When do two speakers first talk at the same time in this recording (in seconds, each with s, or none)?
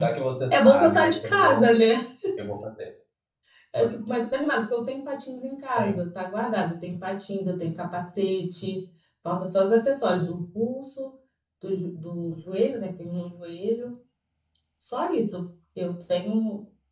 0.5 s